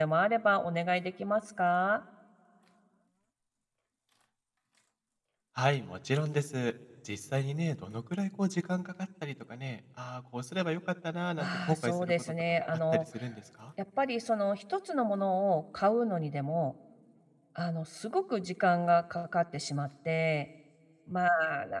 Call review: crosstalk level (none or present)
present